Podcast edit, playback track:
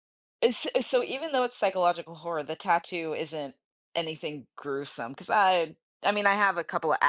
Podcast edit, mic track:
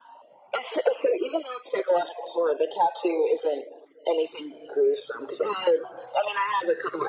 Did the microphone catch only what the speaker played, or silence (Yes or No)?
Yes